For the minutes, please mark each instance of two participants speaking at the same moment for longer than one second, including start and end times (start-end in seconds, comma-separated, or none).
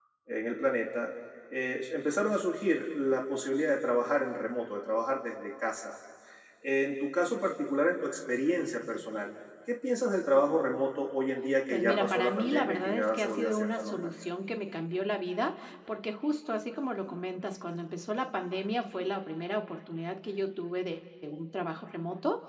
11.7-14.1